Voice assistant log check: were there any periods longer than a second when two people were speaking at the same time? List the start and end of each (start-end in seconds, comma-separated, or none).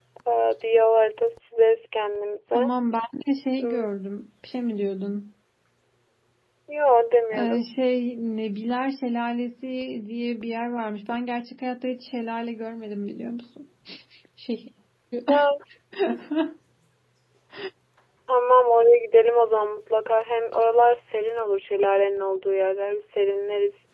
none